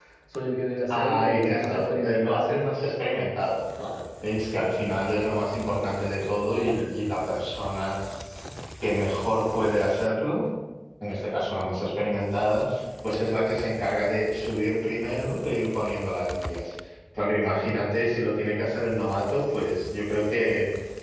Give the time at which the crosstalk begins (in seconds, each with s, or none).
0.9 s